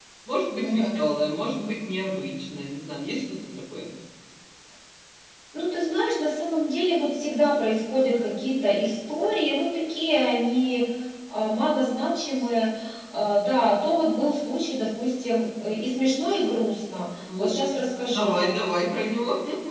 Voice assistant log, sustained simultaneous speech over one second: none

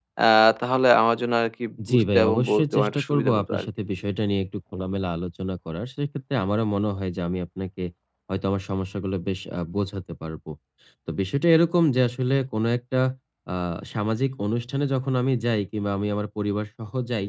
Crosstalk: present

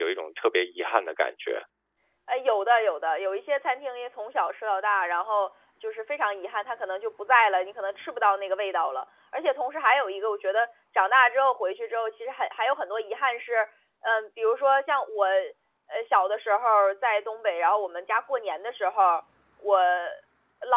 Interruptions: none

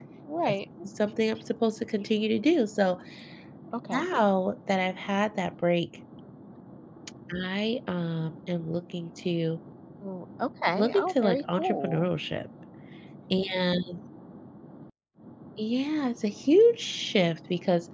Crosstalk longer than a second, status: present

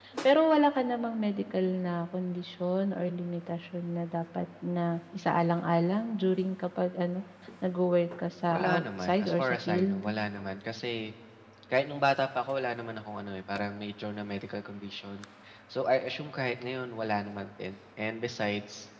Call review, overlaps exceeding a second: present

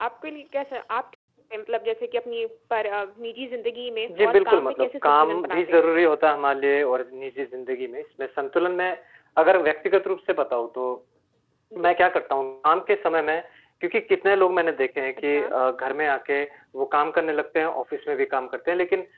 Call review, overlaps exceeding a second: present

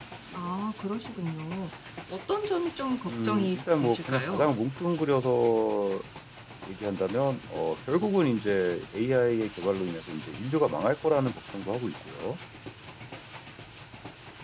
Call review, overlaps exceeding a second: present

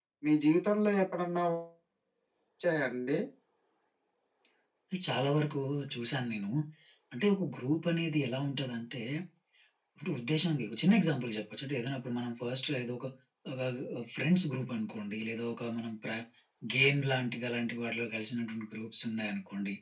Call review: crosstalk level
none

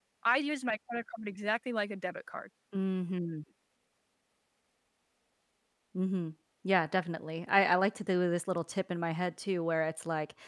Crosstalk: none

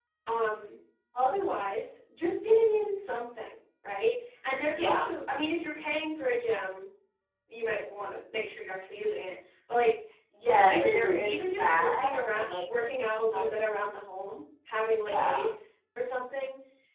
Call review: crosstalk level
present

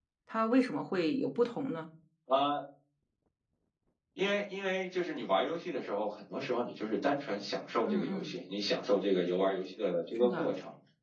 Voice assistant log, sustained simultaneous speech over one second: none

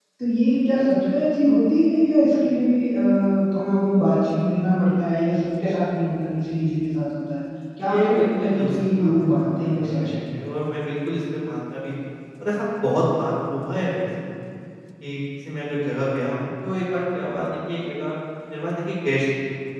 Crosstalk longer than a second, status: present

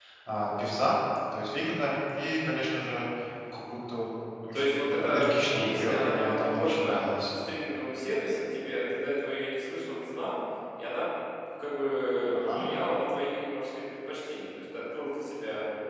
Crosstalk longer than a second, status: present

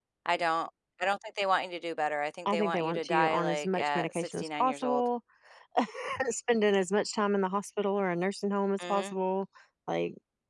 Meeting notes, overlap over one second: present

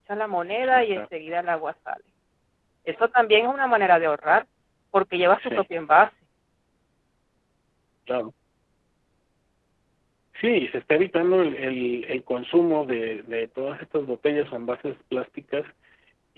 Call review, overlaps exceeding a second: none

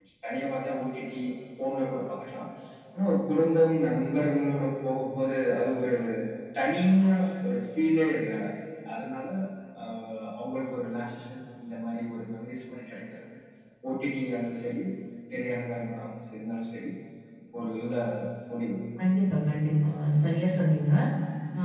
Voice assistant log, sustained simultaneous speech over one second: none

